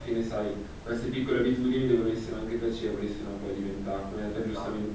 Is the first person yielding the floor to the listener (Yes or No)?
No